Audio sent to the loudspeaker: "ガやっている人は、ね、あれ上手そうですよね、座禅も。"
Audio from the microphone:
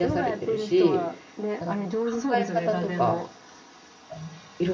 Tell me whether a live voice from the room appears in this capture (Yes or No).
Yes